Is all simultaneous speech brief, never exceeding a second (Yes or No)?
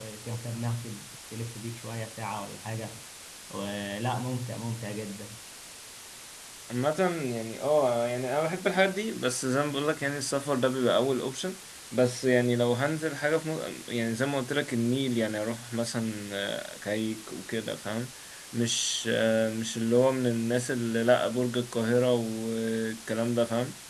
Yes